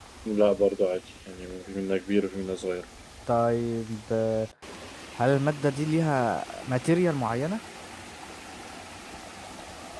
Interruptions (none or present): none